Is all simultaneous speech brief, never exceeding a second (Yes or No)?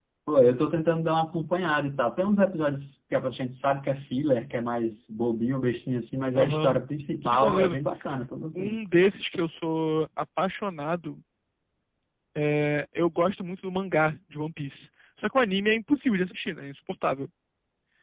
Yes